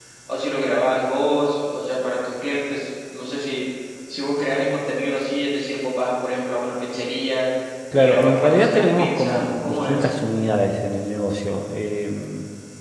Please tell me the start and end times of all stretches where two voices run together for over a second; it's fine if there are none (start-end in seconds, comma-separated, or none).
8.0-10.1